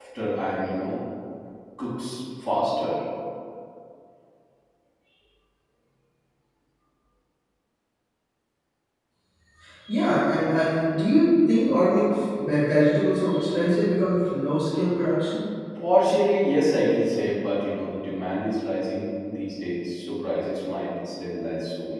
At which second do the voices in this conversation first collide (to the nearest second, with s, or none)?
none